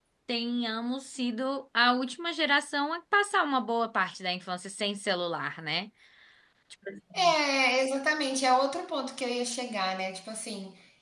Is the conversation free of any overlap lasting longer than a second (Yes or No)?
Yes